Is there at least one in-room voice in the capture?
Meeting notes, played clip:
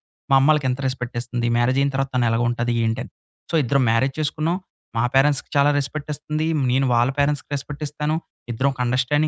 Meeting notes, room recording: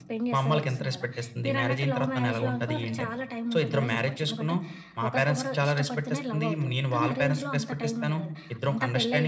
Yes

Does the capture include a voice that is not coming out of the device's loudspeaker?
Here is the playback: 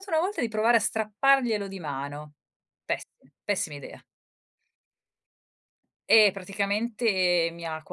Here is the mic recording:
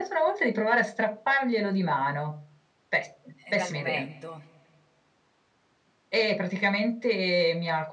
Yes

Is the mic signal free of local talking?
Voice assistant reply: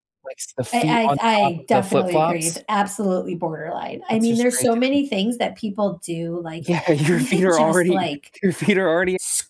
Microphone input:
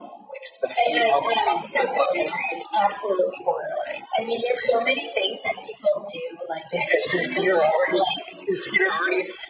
Yes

